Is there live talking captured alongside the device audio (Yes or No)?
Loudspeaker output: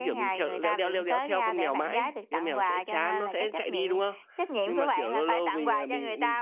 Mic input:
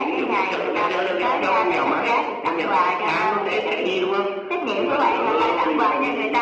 No